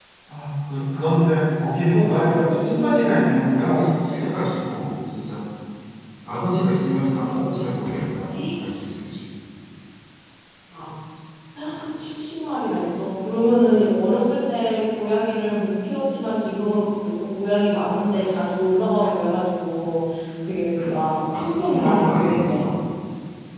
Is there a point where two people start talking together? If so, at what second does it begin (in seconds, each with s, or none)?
1.9 s